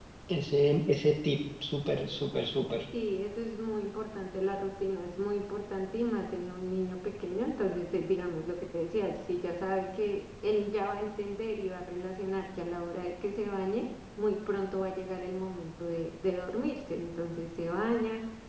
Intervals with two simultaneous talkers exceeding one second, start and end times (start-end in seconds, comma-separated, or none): none